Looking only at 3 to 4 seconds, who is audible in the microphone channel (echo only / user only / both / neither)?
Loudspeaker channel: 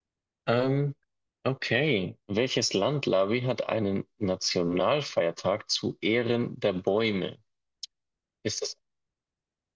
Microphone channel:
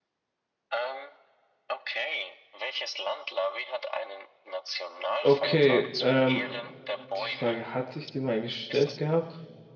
echo only